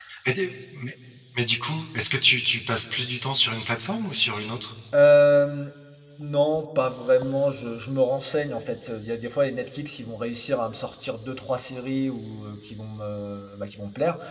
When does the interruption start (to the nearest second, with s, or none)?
none